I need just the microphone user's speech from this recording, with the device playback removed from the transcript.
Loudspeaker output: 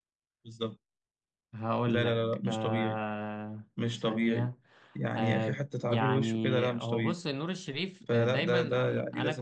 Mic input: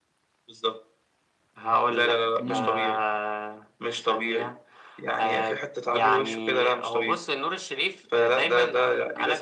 مم.

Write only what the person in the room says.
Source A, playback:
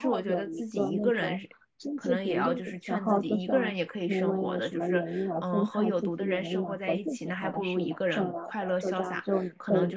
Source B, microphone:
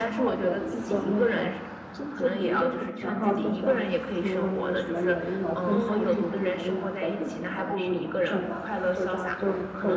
嗯，

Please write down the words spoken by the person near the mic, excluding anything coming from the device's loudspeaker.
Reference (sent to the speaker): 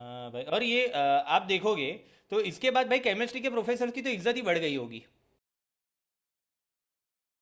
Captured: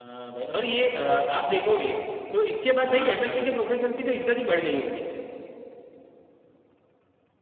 हम्म हम्म

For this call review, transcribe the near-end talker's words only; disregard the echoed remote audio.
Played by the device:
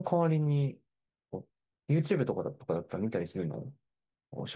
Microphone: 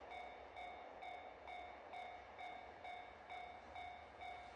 none

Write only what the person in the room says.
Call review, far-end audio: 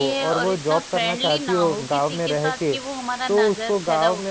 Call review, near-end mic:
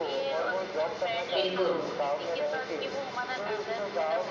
बिल्कुल

